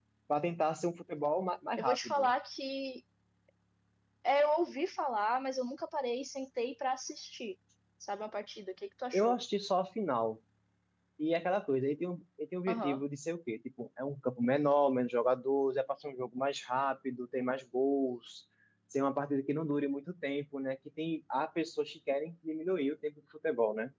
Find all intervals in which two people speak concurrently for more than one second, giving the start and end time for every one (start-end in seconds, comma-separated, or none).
none